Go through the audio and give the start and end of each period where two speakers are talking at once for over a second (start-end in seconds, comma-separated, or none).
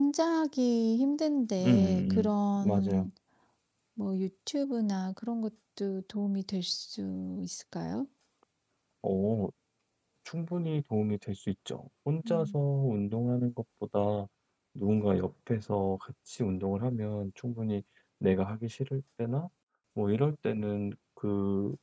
1.6-3.1